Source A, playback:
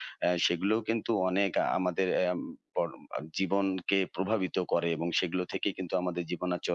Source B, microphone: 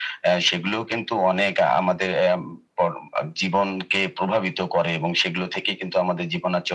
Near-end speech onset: none

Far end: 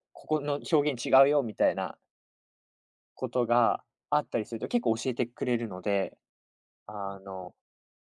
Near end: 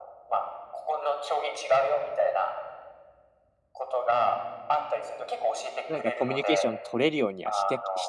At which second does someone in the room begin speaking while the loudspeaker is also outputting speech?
6 s

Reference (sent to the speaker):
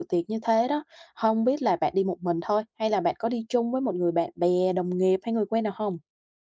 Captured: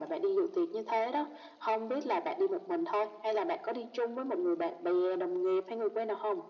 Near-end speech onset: none

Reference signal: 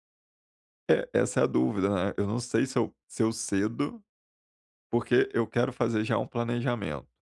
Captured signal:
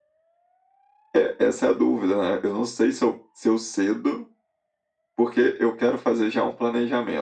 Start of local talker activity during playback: none

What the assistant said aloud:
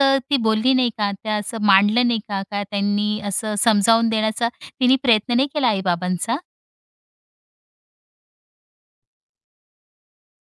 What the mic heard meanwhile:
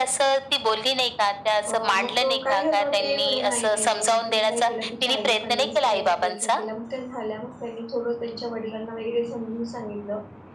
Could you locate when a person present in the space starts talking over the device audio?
2 s

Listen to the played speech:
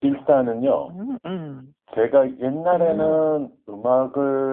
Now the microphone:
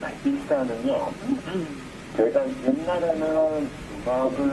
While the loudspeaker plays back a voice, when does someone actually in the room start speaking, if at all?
none

